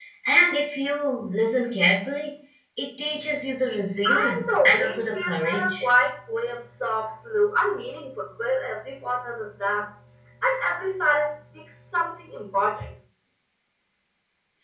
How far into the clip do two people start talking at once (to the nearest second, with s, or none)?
4 s